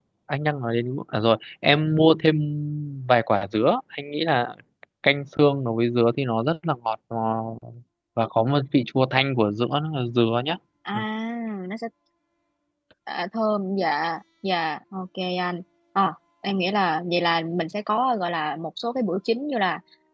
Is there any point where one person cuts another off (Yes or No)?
No